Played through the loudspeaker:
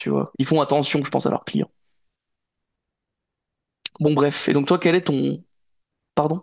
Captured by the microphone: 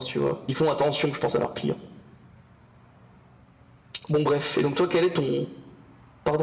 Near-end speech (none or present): none